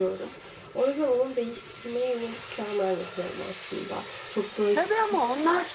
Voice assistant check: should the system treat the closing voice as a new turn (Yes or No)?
Yes